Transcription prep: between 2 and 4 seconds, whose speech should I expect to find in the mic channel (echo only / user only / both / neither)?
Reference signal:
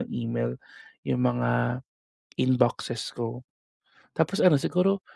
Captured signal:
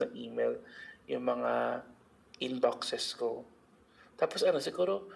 echo only